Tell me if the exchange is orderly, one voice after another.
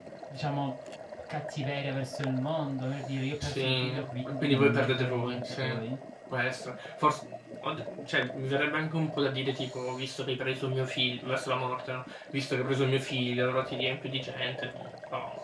No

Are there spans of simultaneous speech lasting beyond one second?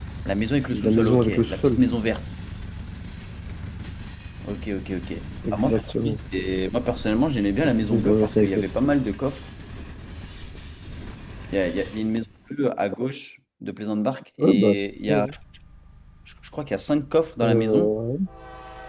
Yes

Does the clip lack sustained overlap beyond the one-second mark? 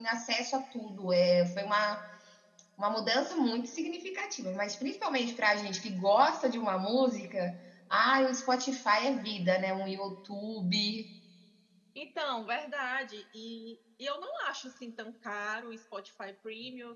Yes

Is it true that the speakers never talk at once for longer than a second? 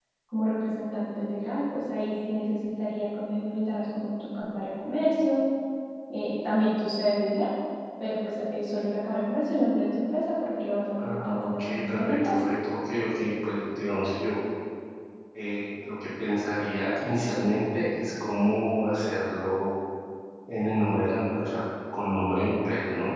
No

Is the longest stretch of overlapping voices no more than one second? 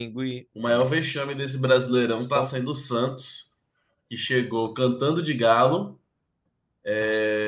Yes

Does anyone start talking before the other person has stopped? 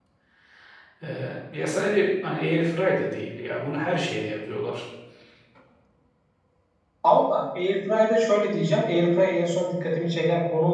No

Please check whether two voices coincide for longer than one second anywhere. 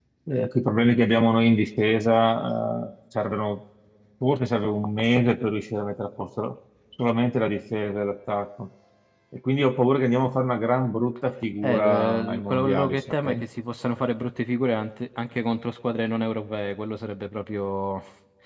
Yes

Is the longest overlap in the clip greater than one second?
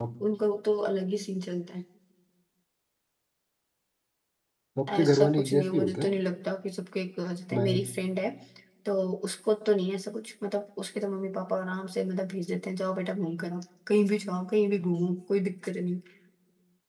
Yes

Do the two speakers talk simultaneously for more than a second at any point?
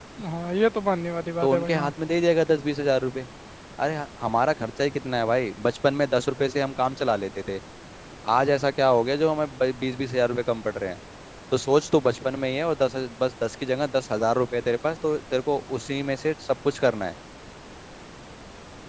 No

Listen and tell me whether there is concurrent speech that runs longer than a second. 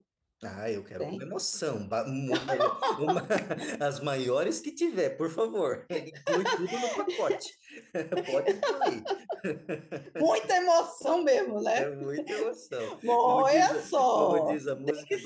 Yes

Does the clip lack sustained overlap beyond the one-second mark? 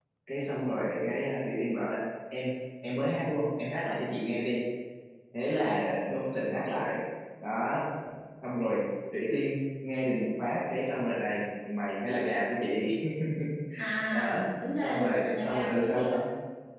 No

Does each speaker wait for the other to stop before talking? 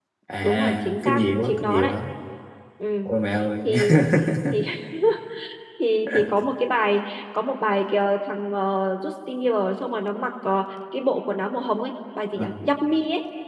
No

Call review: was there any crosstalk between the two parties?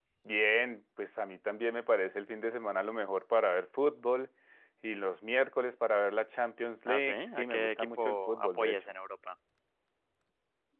Yes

